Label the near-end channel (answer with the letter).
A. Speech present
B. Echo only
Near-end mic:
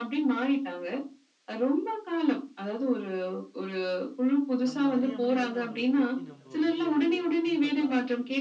A